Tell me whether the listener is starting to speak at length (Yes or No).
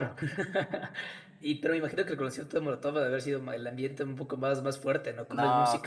Yes